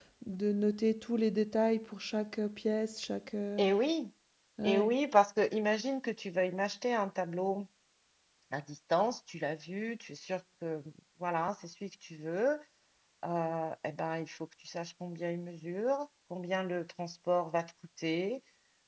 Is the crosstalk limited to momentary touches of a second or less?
Yes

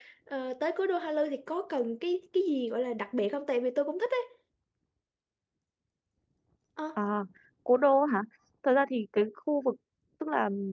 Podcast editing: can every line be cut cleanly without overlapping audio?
Yes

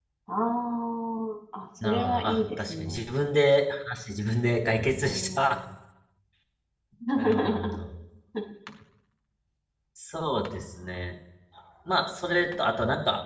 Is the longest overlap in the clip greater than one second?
Yes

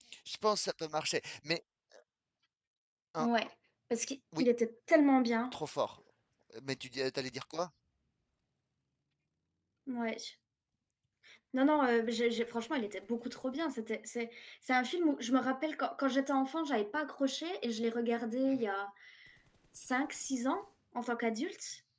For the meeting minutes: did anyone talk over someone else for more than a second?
No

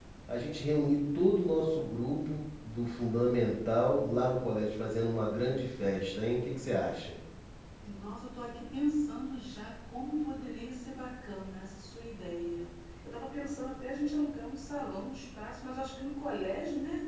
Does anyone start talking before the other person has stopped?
No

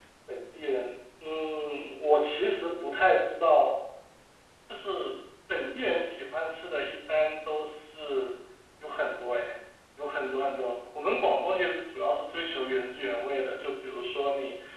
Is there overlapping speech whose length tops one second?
No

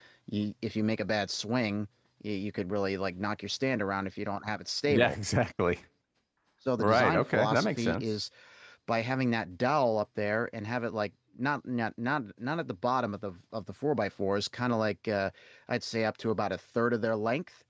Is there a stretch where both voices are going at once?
Yes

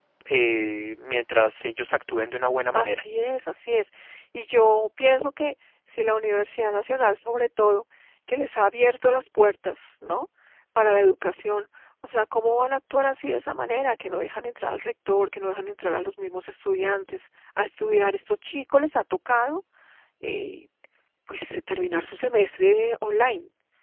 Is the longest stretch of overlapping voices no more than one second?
Yes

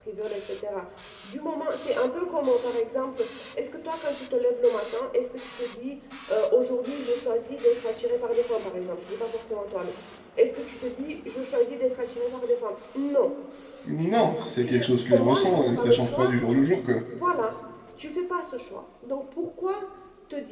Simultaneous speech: Yes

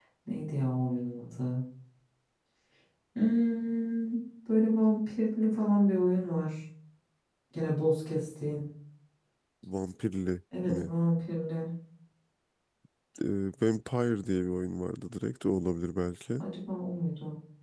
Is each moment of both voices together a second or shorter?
Yes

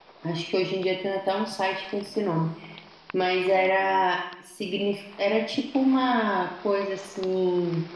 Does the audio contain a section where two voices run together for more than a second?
No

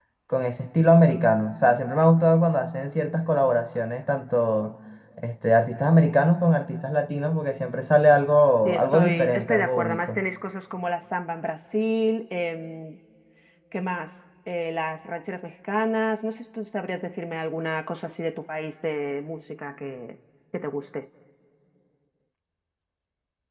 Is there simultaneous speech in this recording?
Yes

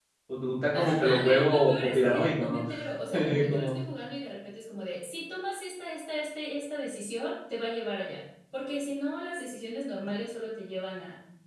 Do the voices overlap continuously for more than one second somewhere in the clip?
Yes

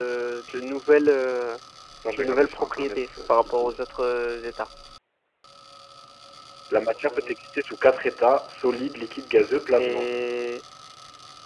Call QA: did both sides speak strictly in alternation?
No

